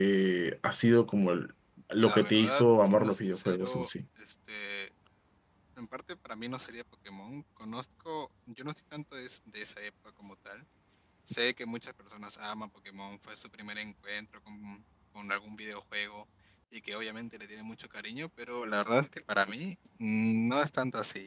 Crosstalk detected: Yes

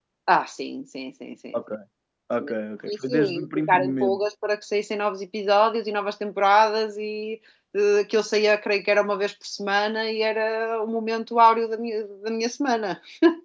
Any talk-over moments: Yes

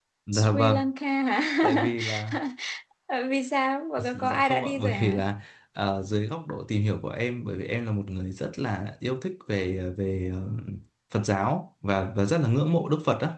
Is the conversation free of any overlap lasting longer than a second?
No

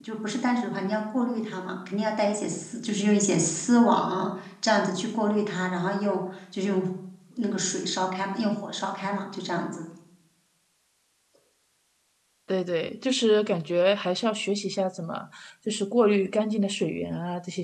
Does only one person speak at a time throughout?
Yes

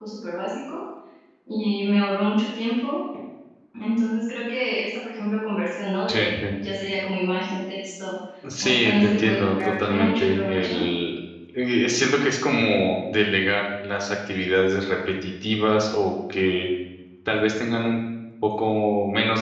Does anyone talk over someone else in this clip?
Yes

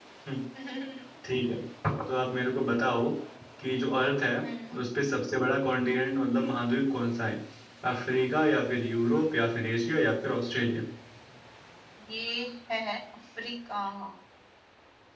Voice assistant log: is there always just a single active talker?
Yes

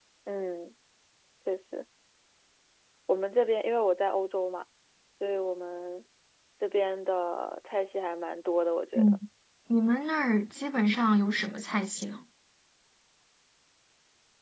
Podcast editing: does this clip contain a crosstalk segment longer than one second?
No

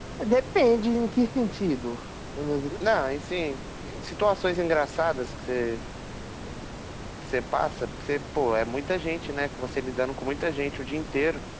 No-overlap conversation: Yes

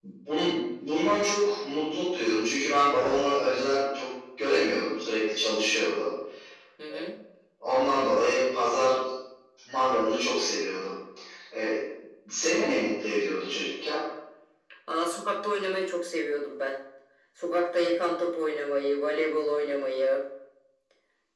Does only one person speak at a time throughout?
Yes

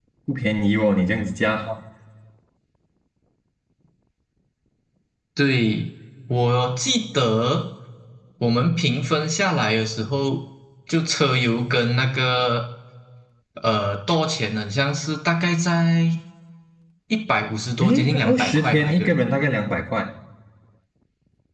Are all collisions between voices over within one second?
No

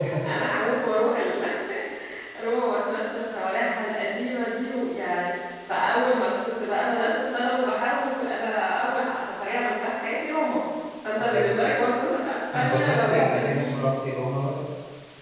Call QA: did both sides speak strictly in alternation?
No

